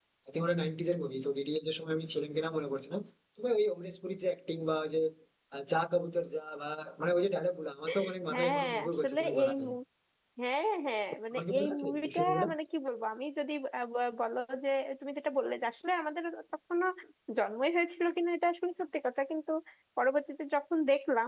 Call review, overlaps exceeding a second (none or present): present